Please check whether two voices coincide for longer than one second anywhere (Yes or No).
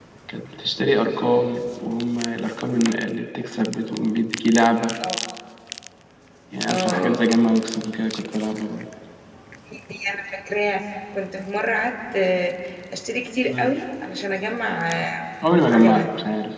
No